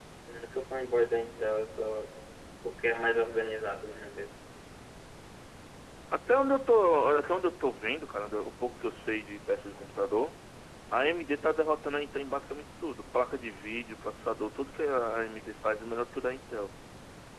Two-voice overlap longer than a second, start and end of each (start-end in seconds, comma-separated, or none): none